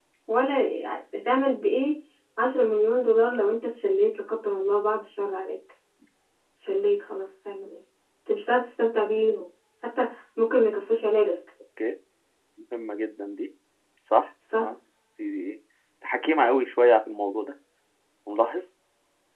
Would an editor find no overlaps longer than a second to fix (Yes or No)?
Yes